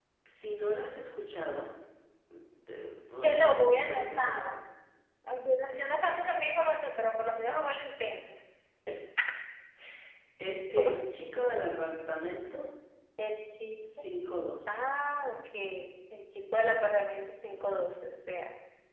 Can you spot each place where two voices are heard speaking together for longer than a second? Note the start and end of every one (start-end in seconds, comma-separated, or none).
3.2-4.4